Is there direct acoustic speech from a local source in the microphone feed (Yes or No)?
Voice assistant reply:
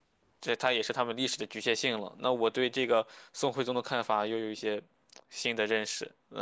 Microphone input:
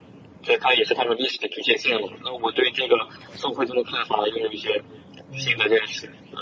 Yes